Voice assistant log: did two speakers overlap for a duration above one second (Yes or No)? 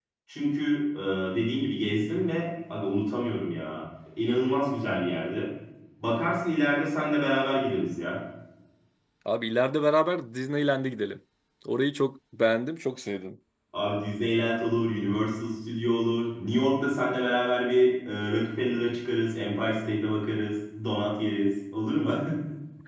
No